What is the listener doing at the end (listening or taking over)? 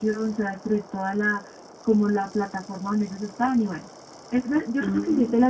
listening